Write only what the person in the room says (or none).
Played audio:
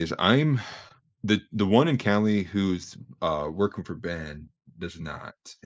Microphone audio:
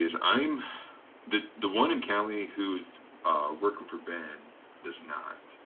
none